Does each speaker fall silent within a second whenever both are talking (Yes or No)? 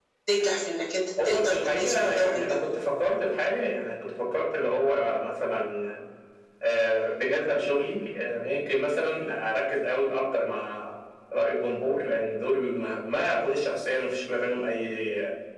No